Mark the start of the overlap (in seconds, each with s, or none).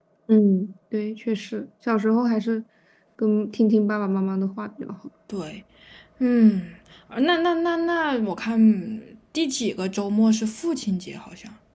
none